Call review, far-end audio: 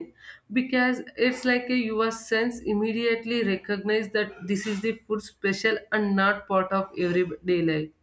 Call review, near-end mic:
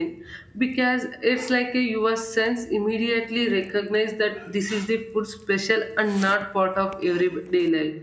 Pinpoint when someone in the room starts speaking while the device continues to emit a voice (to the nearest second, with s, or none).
none